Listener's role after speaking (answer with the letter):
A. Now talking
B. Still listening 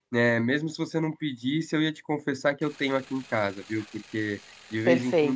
B